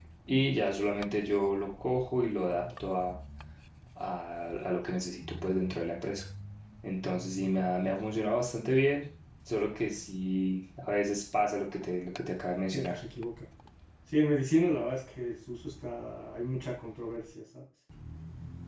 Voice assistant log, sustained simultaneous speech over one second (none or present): none